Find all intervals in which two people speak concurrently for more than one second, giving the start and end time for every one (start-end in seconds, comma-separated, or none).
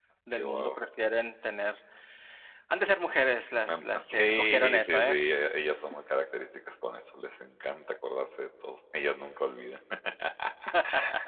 3.7-5.2